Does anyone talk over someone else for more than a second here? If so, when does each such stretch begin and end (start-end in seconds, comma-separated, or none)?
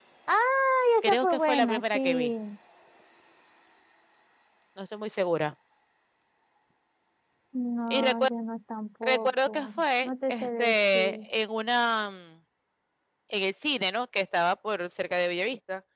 1.0-2.3, 9.0-11.2